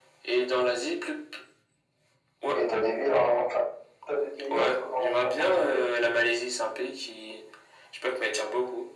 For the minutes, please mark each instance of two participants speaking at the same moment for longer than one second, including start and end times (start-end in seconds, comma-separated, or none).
4.5-5.8